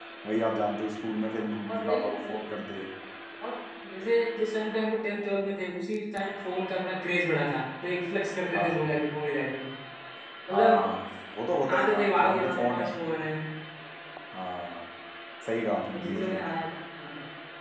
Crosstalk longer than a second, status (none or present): present